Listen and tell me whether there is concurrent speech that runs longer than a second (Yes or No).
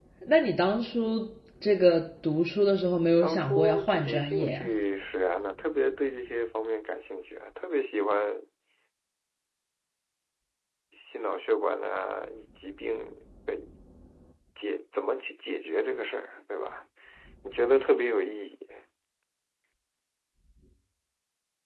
Yes